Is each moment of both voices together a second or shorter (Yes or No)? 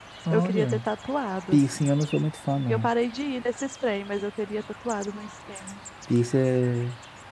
Yes